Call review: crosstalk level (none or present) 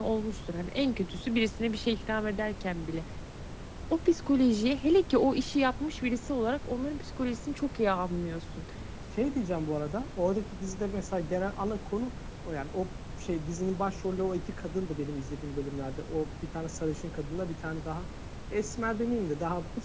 none